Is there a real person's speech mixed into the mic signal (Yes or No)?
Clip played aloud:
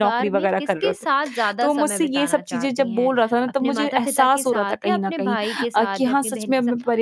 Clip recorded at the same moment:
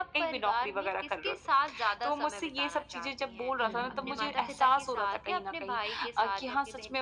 Yes